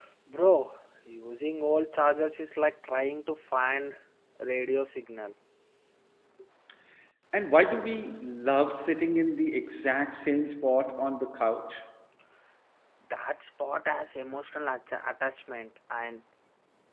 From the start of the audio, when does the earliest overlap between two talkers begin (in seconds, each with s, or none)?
none